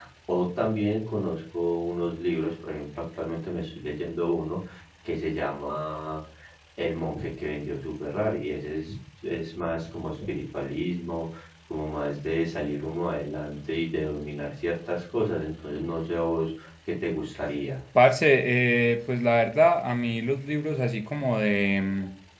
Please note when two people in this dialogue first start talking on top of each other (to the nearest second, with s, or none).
none